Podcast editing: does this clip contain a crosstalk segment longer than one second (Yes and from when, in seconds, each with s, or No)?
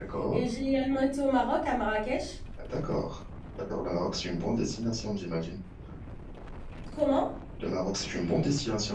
No